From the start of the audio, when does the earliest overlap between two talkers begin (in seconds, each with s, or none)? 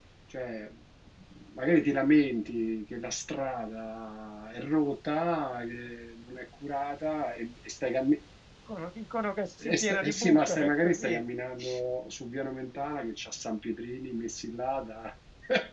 9.6 s